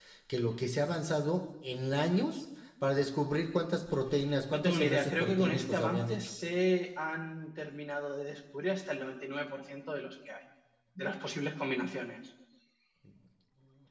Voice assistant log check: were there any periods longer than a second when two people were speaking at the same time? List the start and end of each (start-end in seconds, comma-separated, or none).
4.5-6.2